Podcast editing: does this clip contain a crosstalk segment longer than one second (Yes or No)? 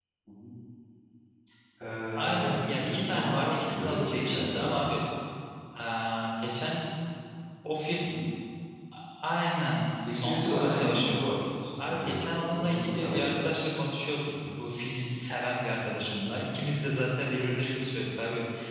Yes